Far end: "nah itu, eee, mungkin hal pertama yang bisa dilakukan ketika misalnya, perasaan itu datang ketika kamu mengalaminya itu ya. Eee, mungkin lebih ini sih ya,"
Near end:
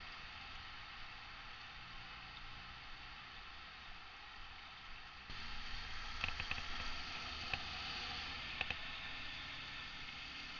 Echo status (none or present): none